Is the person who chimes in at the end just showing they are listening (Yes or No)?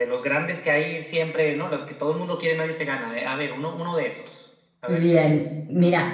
No